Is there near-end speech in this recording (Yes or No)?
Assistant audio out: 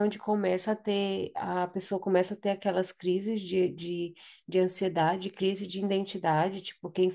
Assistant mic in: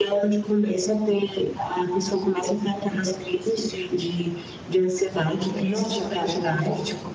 Yes